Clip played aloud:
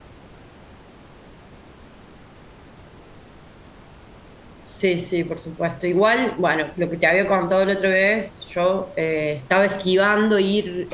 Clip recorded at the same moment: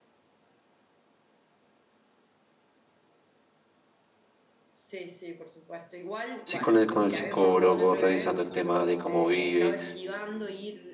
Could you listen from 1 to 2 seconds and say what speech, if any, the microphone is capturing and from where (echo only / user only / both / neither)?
neither